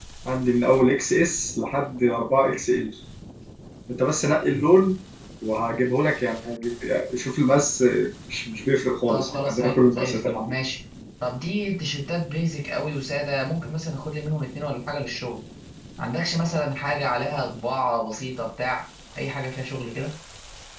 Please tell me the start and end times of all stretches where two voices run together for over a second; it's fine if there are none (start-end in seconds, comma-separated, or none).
9.1-10.5